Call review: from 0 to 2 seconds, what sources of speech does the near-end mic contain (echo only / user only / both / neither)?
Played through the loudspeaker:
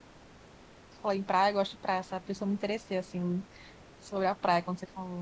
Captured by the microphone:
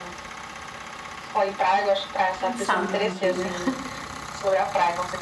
echo only